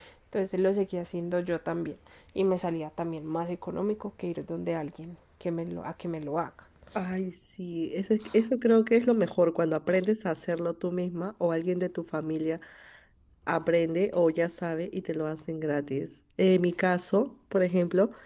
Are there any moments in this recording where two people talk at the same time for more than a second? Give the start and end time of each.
none

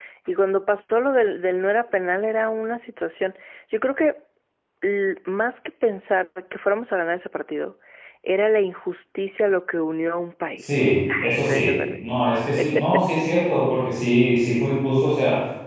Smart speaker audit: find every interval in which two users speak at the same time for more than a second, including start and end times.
10.6-11.8

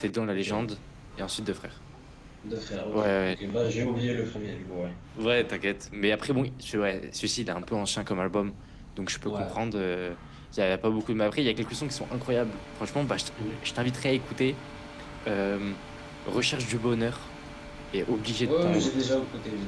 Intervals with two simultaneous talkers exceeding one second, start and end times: none

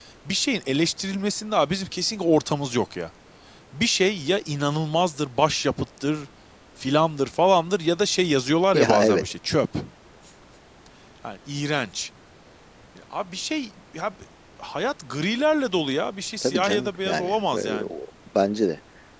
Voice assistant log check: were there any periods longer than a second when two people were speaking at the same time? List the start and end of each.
16.4-17.9

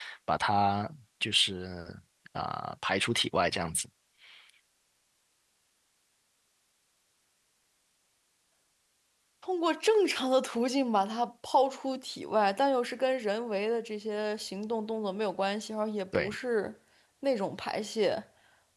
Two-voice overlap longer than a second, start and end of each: none

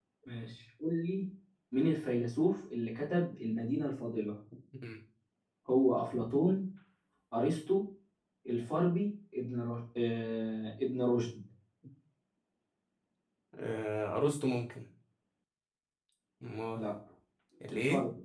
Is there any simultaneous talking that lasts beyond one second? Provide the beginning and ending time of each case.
none

